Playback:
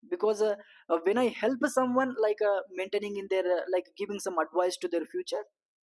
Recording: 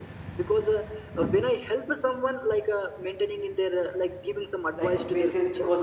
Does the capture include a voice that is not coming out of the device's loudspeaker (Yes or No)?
Yes